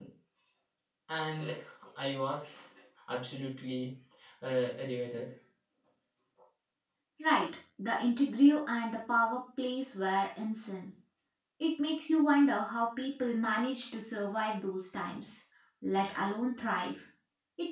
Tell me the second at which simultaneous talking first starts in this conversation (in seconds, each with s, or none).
none